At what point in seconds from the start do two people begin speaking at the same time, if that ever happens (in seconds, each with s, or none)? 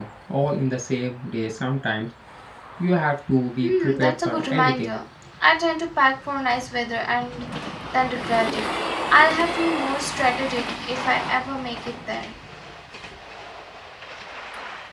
3.6 s